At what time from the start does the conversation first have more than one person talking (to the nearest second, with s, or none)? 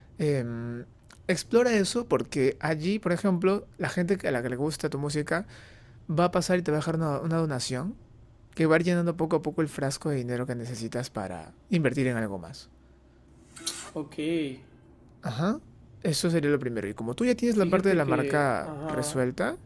18 s